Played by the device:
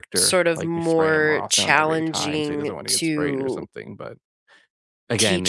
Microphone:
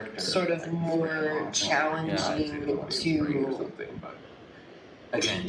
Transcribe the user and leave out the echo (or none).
Yeah.